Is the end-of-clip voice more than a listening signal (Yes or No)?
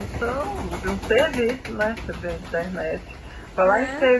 No